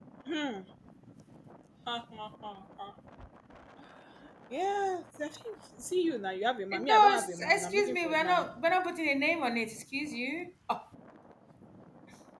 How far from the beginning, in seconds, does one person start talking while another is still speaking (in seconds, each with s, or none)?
6.7 s